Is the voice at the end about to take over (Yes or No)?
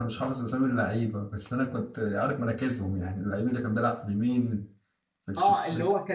Yes